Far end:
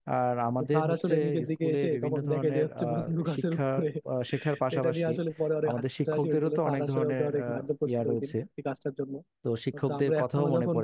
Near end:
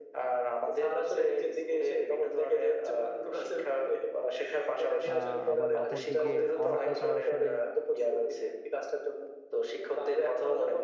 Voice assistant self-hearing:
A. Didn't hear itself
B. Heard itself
B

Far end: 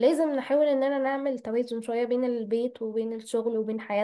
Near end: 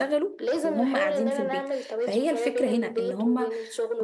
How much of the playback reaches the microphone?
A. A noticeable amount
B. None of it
A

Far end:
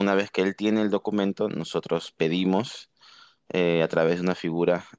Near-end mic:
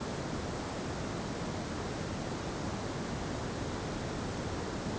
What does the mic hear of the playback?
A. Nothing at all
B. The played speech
A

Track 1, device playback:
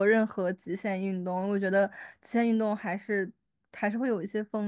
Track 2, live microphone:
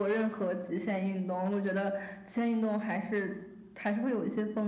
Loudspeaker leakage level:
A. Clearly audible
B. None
A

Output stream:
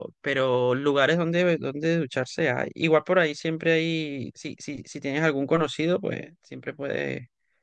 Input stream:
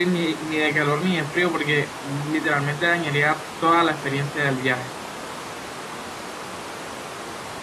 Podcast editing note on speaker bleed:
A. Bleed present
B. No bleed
B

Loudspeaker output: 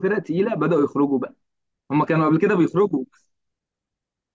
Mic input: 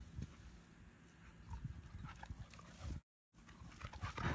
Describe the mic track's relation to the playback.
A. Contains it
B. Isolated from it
B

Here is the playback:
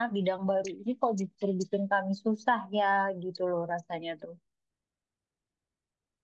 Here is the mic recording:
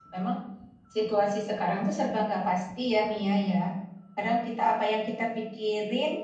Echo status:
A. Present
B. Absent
B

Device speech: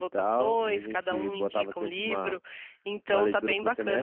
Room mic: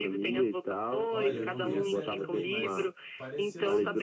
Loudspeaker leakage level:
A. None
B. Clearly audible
B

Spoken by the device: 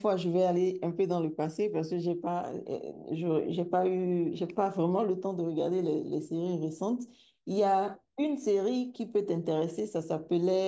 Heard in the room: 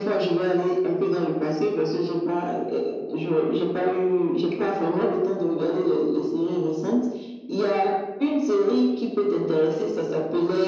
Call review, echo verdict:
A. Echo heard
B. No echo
A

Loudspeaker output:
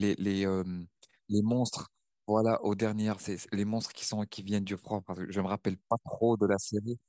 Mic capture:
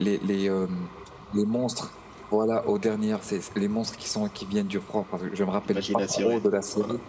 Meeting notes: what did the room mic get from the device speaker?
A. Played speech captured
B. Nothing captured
A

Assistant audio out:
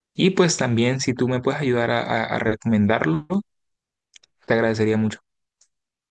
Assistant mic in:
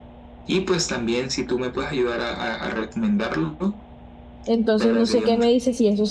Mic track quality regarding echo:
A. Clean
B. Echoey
B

